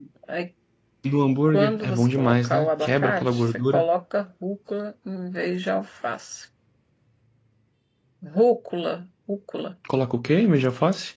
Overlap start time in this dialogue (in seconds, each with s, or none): 1.5 s